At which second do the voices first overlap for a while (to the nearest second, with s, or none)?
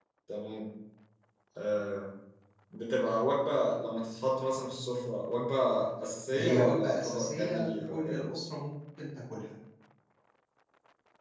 6 s